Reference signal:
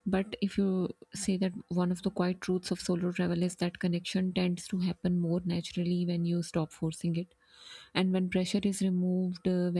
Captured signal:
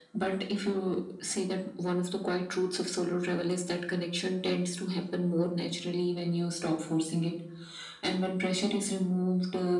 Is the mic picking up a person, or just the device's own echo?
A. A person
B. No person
B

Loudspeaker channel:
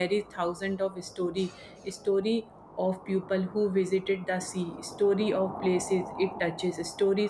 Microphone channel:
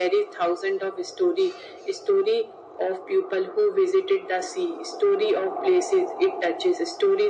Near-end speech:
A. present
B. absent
B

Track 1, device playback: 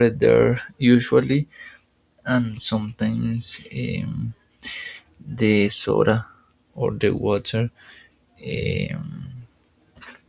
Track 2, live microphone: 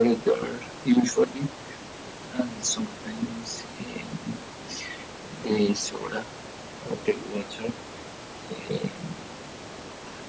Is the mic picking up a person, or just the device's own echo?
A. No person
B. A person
A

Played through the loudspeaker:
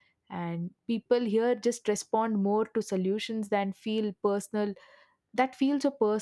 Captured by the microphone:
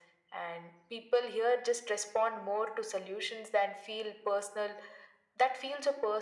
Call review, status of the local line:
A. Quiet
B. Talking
A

